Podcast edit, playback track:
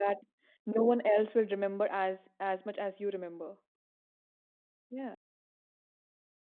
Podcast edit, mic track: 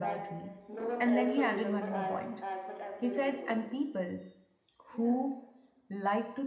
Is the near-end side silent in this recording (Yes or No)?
No